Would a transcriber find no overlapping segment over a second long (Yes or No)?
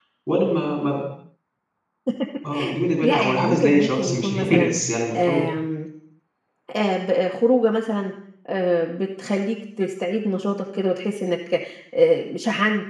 No